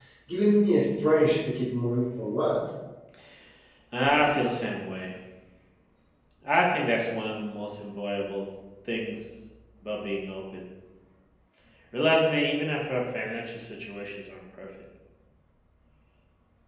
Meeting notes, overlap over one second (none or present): none